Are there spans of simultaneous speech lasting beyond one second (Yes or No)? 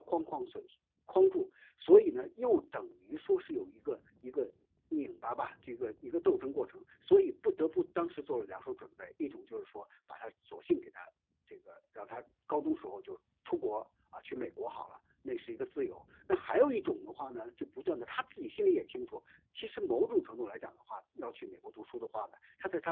No